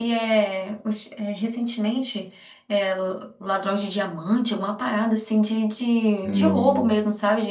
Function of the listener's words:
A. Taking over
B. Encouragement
B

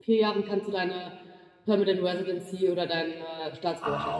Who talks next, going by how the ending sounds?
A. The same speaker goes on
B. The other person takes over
B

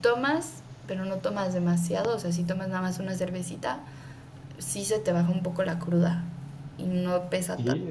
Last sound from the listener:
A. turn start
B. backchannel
A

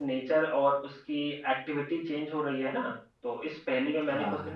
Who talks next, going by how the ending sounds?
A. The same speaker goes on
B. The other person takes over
A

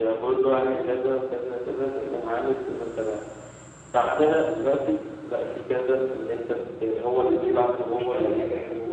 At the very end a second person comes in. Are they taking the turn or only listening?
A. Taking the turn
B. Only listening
B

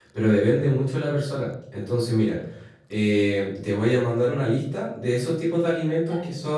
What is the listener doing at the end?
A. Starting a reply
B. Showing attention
B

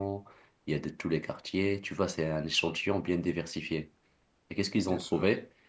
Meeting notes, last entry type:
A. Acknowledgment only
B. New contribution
A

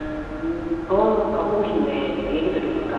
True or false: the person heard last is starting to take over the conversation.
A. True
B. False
A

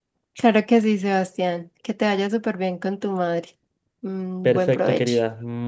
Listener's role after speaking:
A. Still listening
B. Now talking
B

